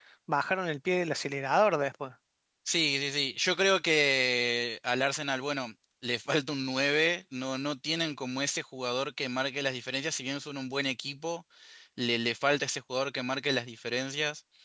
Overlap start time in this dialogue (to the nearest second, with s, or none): none